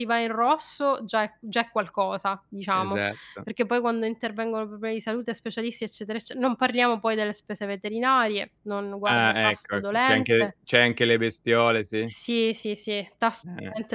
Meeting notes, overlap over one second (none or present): present